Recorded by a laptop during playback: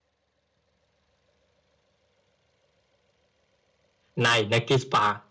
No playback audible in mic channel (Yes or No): Yes